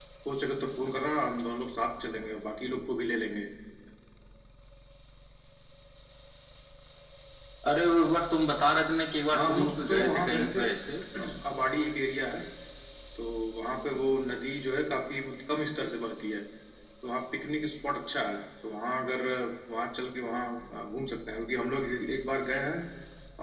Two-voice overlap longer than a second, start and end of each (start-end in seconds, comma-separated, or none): 9.3-10.6